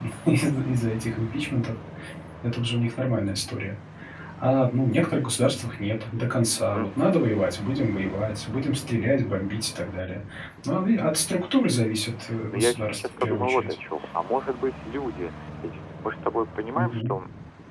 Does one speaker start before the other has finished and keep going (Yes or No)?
Yes